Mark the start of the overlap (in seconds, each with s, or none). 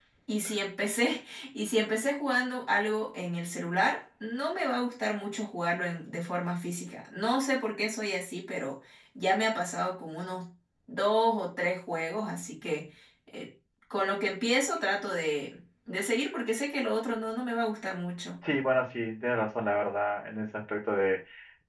none